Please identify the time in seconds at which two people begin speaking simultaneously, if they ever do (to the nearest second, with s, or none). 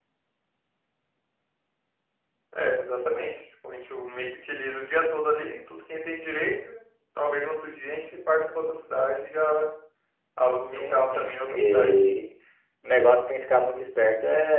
11 s